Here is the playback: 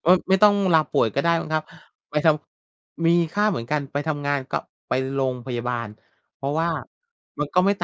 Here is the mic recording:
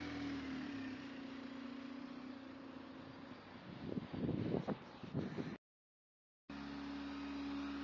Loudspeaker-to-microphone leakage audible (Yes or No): No